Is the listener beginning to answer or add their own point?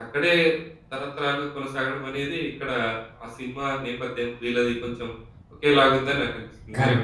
Yes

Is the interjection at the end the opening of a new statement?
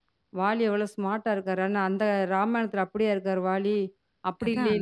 No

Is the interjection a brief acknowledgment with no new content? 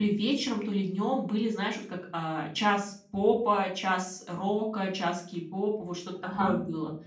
Yes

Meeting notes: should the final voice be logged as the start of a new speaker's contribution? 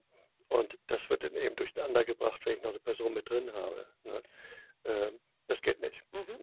Yes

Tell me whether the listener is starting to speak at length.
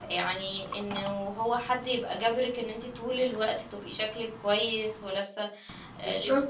No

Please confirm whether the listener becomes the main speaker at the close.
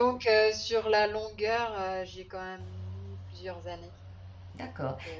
Yes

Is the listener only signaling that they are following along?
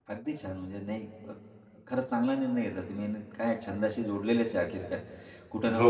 Yes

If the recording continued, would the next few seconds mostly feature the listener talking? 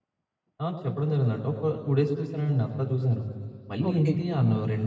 No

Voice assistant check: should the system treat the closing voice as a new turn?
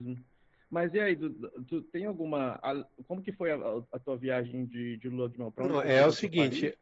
Yes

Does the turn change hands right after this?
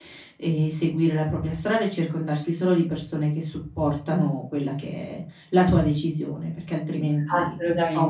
Yes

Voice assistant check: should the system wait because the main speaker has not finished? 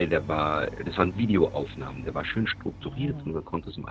Yes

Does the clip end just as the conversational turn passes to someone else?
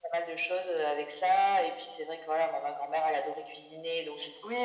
Yes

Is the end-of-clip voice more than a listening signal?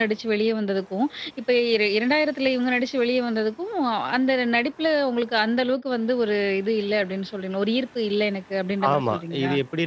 Yes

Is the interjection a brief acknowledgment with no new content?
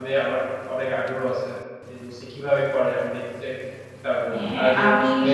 No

